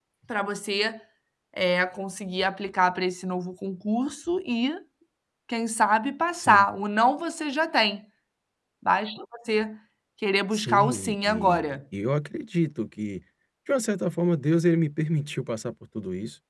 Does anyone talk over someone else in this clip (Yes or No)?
Yes